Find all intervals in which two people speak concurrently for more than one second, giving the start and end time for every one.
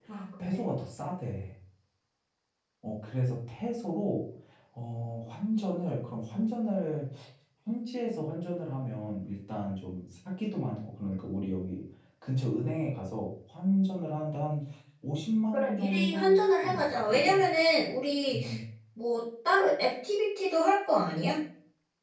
15.5-17.4

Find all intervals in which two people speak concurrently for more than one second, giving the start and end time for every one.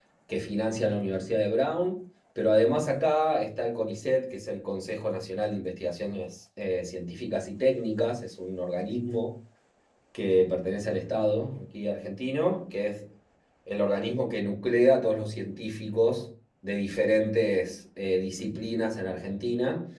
none

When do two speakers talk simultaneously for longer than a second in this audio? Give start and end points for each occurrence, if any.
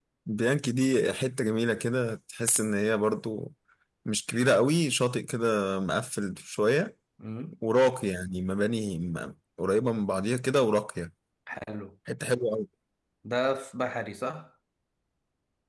none

